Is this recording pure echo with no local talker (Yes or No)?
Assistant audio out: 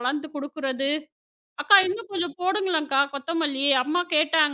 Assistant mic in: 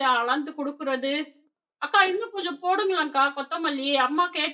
Yes